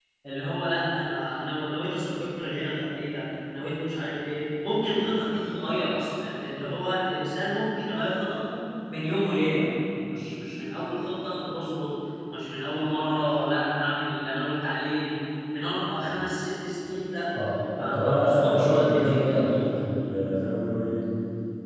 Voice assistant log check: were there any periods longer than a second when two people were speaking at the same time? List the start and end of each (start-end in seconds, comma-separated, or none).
17.8-19.7